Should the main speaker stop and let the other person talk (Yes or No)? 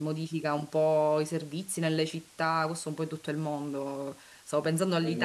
No